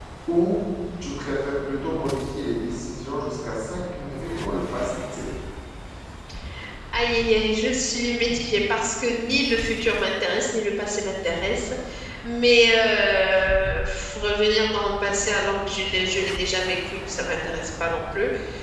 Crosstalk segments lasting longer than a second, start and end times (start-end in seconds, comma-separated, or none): none